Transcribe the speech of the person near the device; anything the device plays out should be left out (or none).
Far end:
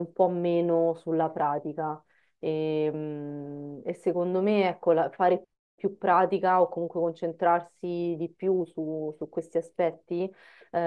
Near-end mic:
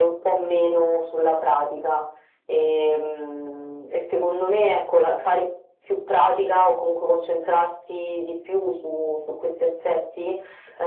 none